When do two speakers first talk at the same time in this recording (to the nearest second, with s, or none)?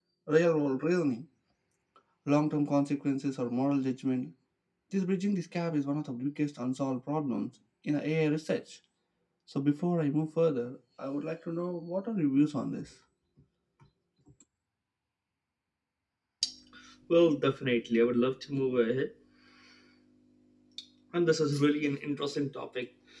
none